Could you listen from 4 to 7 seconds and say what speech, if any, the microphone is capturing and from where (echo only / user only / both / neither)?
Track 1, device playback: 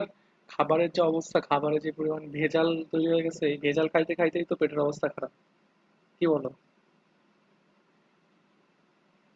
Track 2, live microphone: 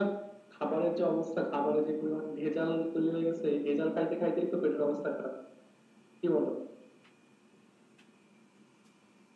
echo only